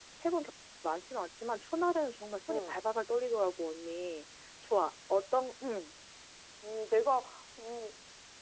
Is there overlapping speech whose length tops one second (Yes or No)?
No